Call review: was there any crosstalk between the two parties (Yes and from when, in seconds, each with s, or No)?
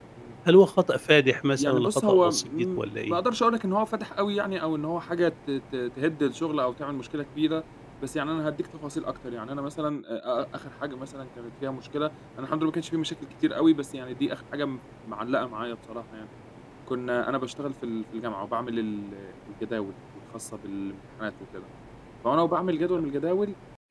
Yes, from 1.6 s